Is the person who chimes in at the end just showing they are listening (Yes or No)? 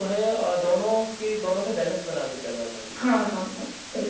No